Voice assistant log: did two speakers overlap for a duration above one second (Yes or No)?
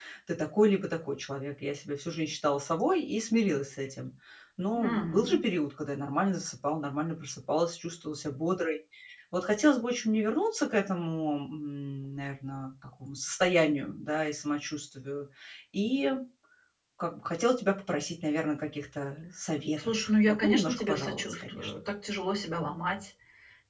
Yes